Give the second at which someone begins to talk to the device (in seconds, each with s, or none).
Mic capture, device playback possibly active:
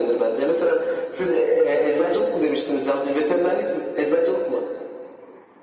none